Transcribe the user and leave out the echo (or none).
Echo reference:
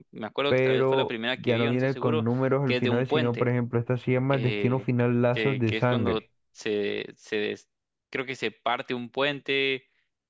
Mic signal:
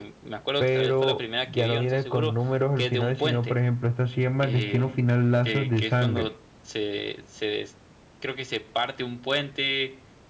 none